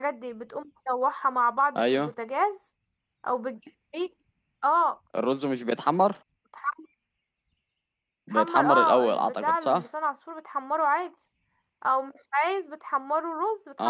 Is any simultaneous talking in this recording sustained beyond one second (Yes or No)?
Yes